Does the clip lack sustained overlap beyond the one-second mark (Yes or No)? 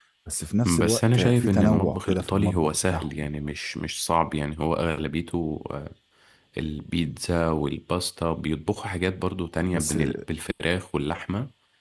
No